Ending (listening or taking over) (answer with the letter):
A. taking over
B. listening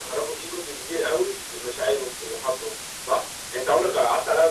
B